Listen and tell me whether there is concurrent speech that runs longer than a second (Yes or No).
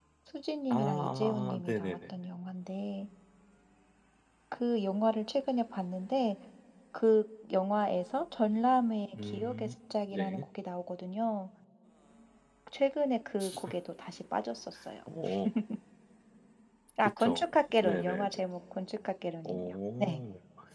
Yes